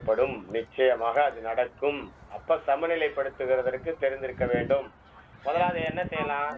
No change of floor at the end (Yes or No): No